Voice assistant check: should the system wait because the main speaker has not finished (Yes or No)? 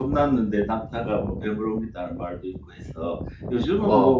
Yes